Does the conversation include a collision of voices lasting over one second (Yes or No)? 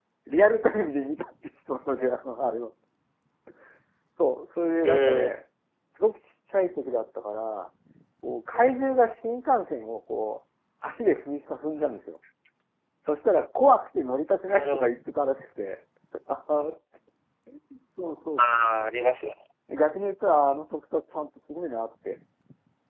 No